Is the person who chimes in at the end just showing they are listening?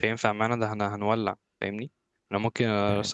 Yes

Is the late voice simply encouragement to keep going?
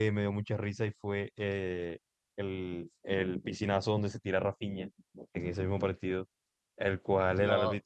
Yes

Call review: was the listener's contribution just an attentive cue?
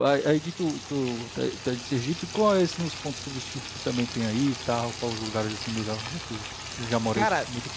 No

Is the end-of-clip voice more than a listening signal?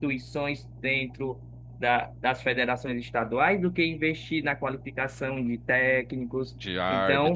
No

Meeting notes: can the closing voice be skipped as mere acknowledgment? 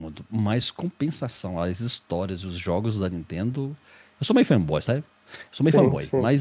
Yes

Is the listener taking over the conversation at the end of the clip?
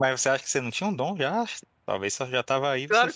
Yes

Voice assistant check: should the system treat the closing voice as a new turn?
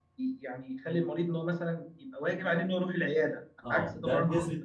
Yes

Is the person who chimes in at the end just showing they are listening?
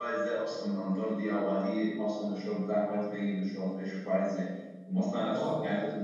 Yes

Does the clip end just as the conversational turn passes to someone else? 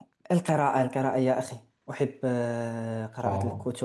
No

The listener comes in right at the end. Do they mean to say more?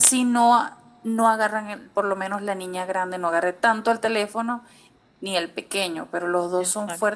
No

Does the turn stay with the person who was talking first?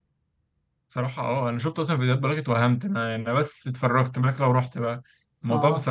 Yes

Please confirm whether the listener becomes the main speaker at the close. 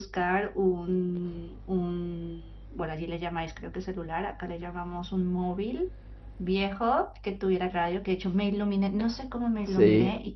No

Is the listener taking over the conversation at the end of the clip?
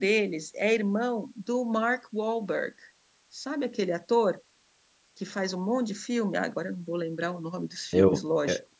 Yes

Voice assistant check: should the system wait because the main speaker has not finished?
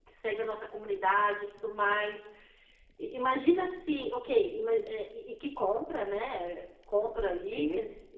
Yes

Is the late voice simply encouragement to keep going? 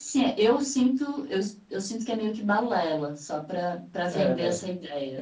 No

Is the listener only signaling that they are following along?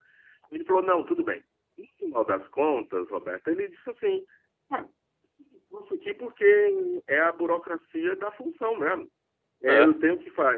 Yes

